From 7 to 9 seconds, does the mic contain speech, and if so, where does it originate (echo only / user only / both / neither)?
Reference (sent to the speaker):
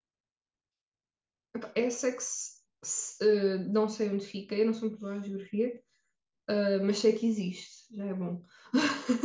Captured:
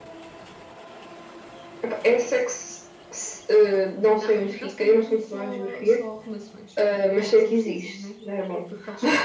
both